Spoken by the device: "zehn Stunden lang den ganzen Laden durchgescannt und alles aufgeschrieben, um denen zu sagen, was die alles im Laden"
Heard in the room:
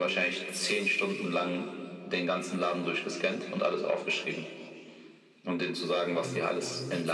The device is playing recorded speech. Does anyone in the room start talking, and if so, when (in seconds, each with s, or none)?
6.1 s